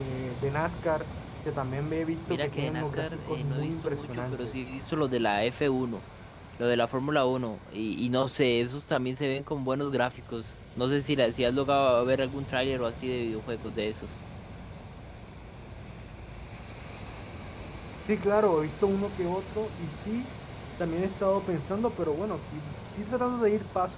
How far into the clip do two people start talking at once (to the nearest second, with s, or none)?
2 s